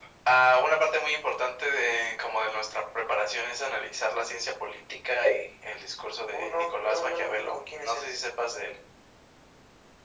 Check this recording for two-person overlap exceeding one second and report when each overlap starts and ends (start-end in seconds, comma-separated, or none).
6.3-8.1